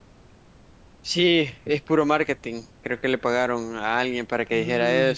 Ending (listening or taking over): taking over